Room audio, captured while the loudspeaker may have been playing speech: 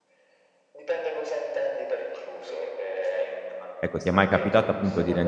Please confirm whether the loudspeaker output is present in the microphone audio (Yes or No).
Yes